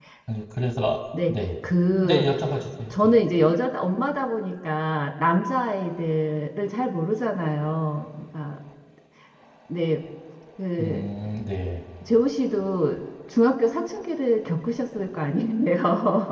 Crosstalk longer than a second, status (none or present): none